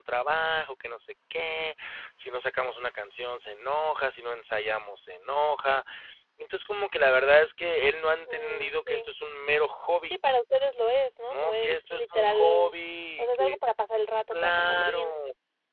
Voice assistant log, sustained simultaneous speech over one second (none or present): present